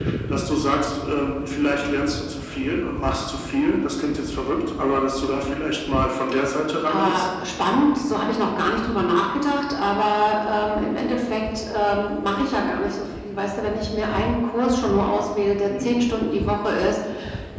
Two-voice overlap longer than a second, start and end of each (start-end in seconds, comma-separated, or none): none